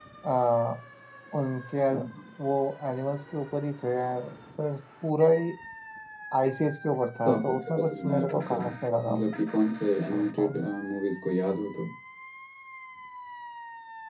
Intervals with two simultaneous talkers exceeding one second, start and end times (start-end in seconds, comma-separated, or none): 7.2-8.7